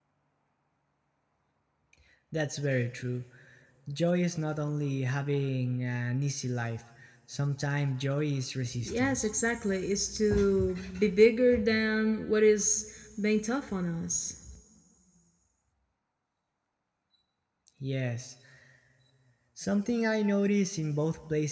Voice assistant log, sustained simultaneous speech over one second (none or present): none